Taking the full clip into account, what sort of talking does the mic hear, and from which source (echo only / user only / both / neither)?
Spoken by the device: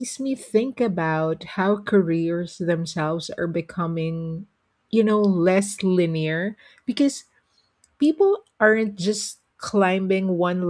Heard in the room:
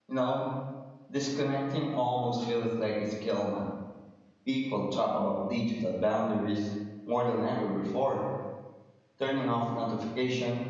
user only